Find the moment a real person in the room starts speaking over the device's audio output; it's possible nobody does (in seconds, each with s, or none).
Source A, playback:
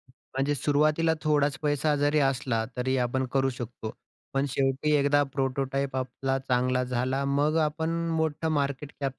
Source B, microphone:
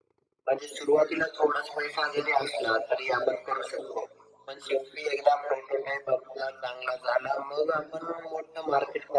none